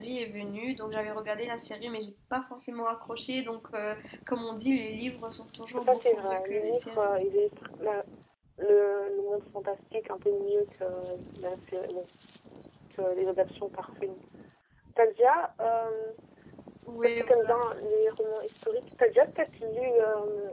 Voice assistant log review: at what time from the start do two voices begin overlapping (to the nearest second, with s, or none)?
6 s